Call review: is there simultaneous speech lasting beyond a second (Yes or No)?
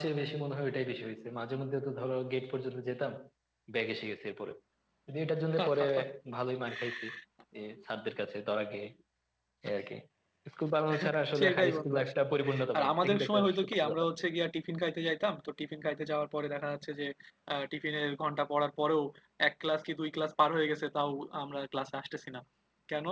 Yes